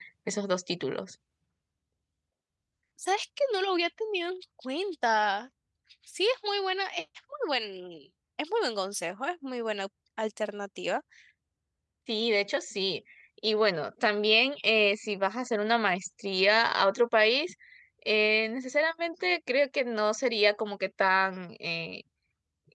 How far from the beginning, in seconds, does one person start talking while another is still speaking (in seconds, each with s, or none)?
none